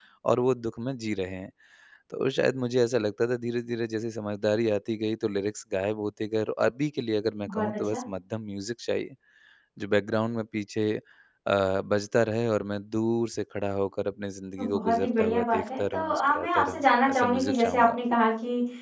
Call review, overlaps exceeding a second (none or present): present